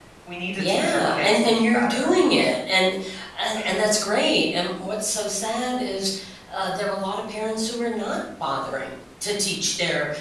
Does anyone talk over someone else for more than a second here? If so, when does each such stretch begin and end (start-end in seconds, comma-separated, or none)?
0.6-2.1